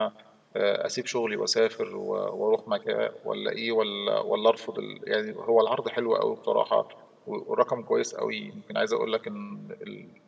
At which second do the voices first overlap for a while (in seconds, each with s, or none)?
none